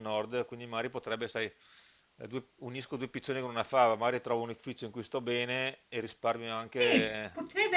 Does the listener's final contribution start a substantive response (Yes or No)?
Yes